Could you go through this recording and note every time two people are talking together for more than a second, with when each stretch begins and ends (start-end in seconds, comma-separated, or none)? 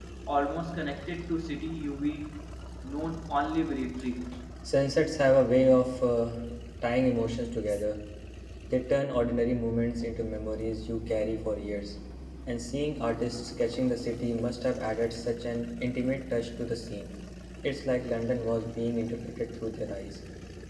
none